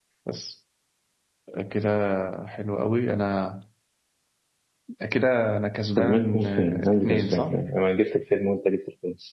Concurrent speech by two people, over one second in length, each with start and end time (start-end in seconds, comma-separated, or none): 6.0-7.6